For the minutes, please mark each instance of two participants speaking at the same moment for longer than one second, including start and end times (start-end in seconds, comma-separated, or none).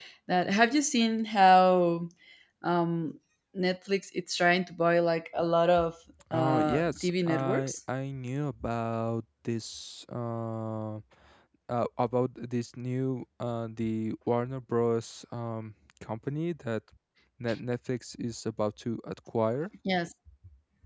6.3-7.8